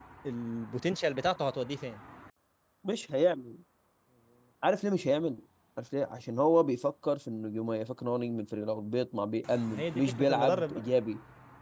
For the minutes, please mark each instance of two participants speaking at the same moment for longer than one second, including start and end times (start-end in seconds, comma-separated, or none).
9.7-10.9